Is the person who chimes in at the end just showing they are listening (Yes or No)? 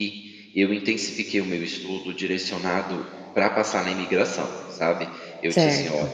Yes